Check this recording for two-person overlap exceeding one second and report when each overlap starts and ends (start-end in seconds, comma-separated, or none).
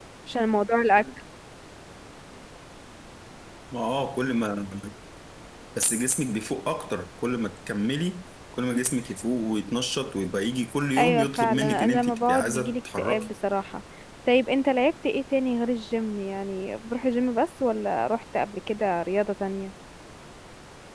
11.0-13.3